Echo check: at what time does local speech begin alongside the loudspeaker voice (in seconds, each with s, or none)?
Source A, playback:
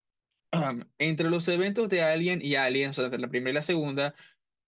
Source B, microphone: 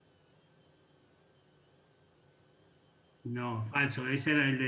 3.2 s